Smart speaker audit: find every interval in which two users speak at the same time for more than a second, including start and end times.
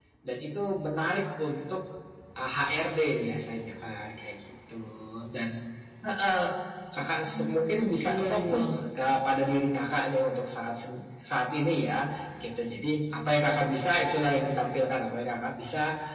7.2-8.7

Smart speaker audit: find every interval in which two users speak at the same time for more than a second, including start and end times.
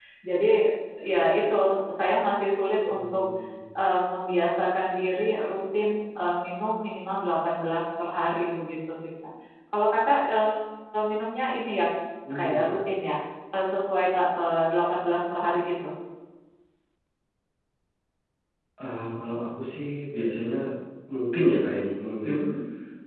none

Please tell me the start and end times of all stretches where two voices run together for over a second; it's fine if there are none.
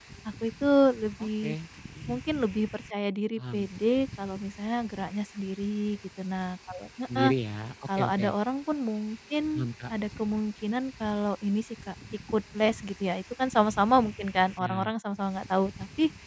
none

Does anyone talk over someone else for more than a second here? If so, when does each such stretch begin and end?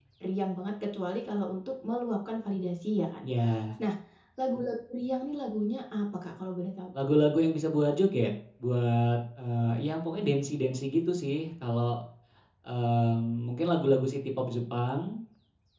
none

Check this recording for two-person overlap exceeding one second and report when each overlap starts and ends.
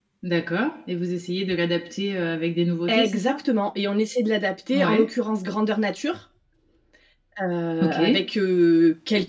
none

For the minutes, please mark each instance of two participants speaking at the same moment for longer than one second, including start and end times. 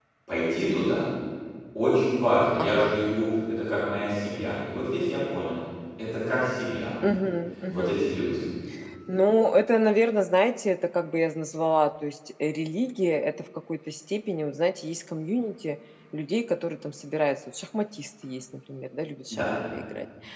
none

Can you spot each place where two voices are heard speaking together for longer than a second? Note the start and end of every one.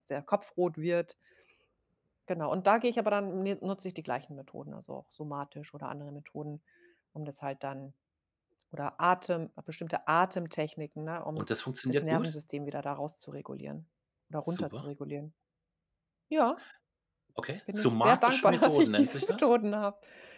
17.8-19.5

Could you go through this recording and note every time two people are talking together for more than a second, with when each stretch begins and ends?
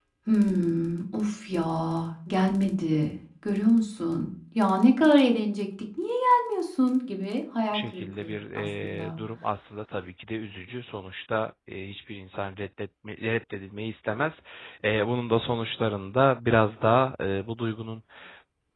7.7-9.2

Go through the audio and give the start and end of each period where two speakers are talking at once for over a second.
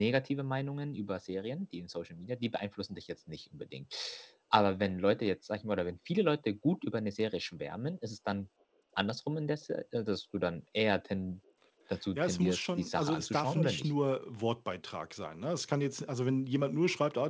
12.2-13.9

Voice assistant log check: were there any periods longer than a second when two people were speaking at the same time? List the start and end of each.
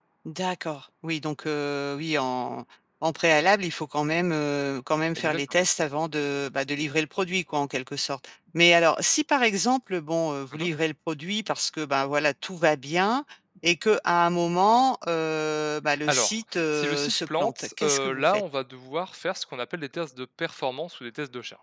16.0-18.4

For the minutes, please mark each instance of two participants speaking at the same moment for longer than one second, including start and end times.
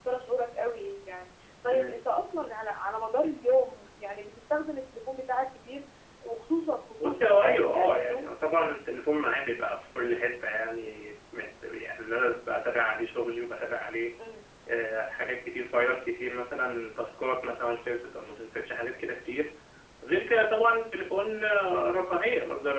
7.0-8.3

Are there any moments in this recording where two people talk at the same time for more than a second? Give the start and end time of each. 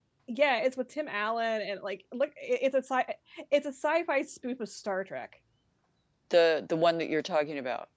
none

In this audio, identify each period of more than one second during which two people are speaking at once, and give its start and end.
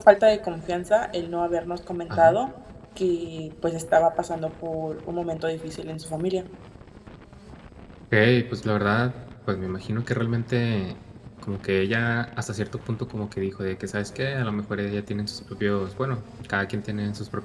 none

